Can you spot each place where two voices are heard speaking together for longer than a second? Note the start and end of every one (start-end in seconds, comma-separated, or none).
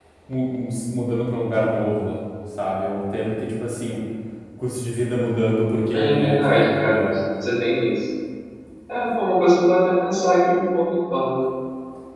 5.9-7.2